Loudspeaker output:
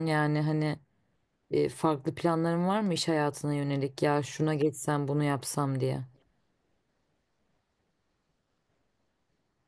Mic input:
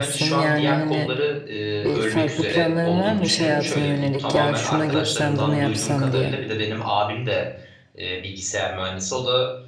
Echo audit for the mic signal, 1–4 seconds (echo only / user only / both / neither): both